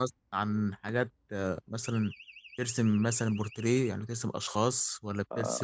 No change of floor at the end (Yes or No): No